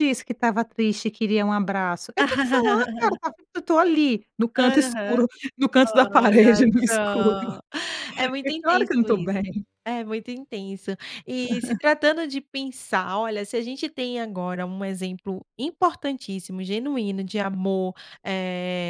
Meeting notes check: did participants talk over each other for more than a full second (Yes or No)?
Yes